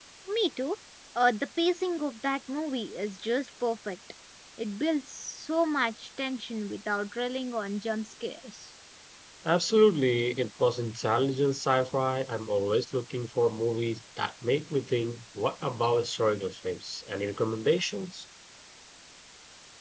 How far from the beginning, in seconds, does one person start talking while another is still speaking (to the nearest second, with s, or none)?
none